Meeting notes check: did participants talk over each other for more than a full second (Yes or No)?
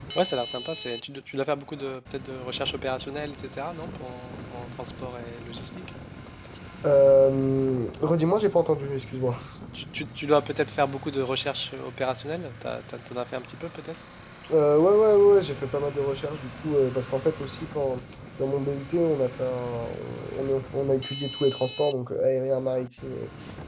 No